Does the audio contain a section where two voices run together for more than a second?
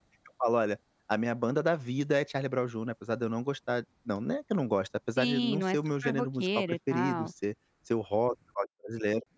Yes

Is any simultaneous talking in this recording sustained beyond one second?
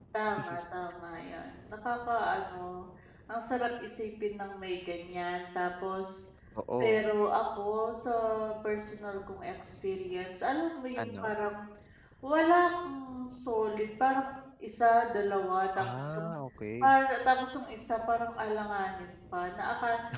No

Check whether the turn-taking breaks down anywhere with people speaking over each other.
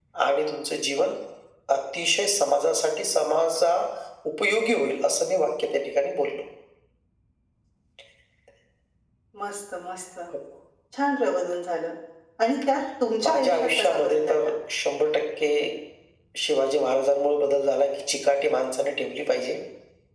Yes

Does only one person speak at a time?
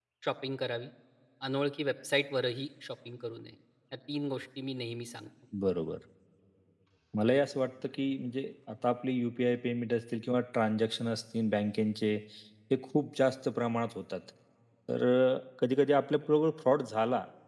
Yes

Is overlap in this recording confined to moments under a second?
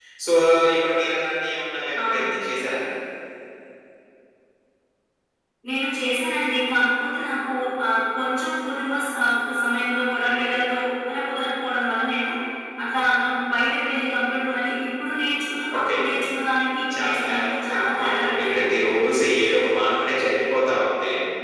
No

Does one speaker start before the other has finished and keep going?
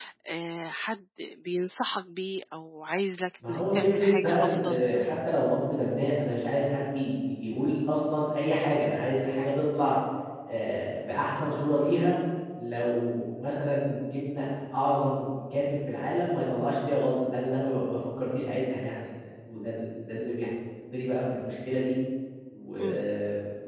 Yes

